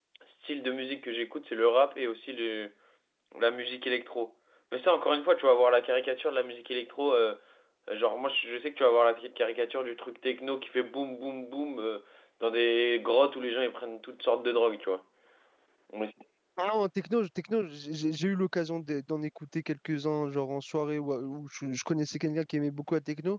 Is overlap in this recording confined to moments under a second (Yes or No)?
Yes